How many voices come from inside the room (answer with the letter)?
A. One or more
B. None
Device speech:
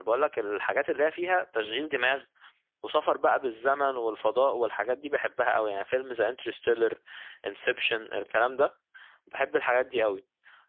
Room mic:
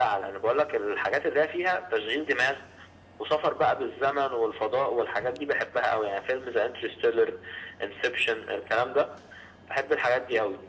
B